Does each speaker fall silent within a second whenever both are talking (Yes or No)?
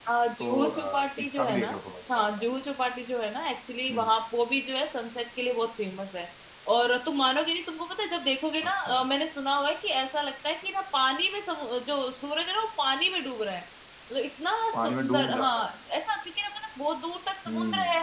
No